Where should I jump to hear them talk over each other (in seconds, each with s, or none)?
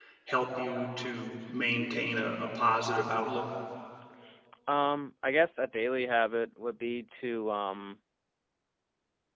none